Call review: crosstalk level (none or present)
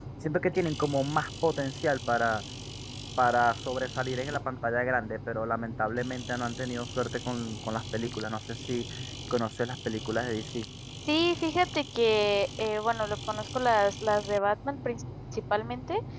none